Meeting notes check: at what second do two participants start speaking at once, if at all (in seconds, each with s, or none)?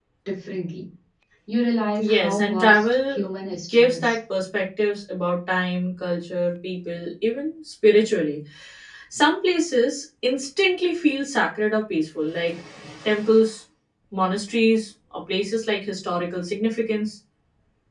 2.0 s